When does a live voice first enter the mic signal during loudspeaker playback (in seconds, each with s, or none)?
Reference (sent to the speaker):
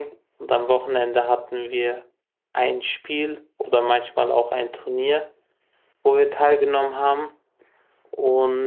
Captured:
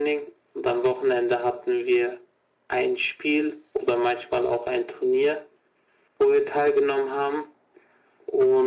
none